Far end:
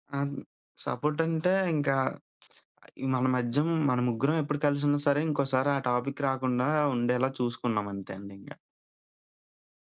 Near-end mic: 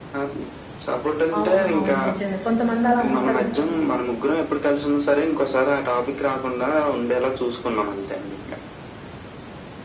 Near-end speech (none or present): present